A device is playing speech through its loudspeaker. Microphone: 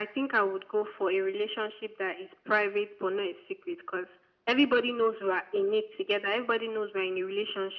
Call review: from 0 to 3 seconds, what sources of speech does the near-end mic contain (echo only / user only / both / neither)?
echo only